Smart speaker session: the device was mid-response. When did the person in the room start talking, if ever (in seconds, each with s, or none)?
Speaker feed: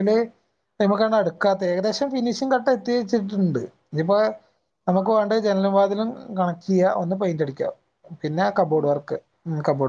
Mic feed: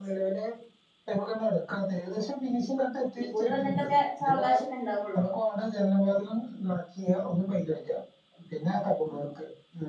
3.2 s